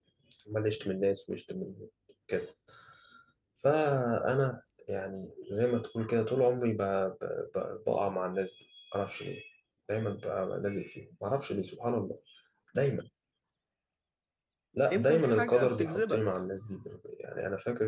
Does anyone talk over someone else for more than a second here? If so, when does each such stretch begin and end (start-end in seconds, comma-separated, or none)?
14.9-16.3